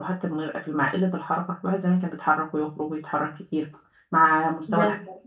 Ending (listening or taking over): listening